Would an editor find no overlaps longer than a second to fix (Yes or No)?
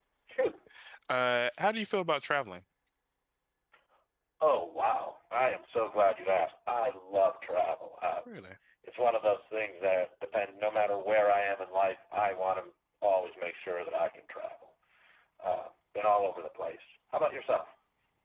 Yes